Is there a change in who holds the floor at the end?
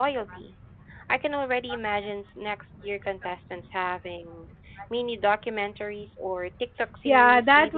Yes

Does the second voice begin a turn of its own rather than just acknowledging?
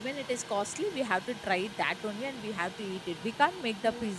No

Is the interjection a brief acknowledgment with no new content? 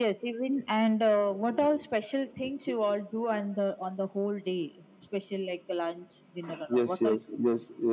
No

